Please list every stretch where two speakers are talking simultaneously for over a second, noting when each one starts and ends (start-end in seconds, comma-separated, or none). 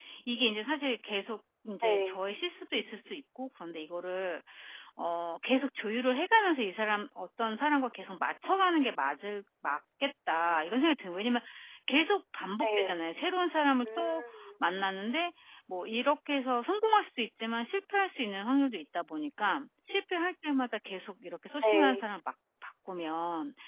none